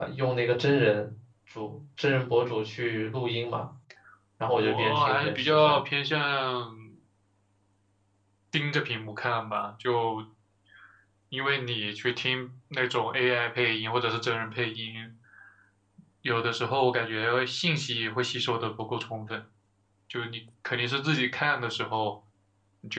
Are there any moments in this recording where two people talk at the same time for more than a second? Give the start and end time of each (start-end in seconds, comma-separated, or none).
4.6-5.8